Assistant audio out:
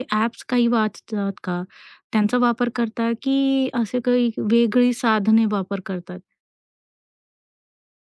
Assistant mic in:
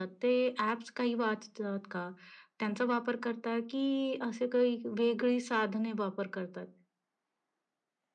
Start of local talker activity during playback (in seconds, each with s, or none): none